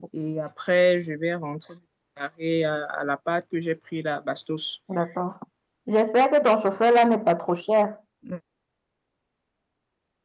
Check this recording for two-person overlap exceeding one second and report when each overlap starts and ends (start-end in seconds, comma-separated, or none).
none